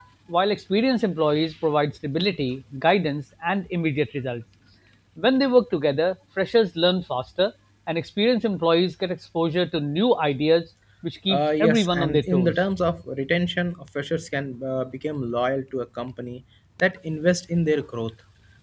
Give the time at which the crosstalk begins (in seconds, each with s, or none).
11.3 s